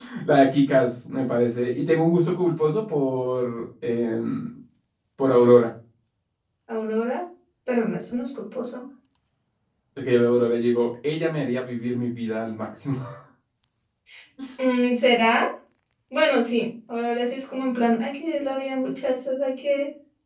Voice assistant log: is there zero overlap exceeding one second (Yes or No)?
Yes